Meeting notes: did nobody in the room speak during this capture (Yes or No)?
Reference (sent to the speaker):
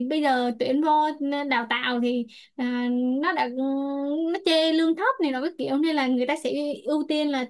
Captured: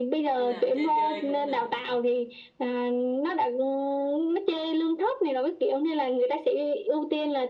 No